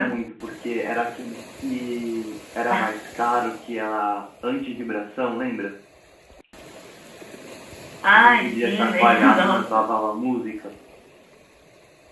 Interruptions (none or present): present